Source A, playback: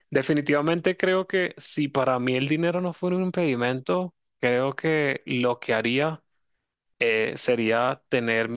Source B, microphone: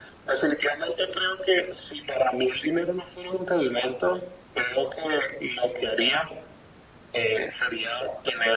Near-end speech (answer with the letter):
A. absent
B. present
A